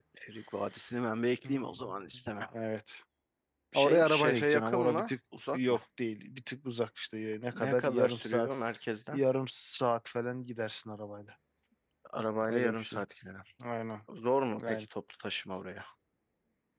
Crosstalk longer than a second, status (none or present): present